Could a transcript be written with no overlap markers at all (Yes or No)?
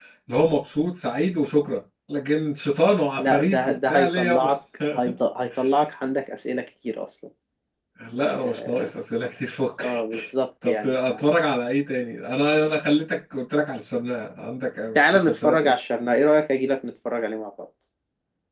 No